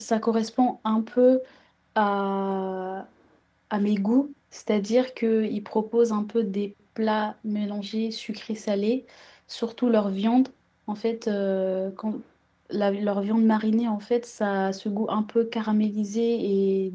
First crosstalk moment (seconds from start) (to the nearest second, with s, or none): none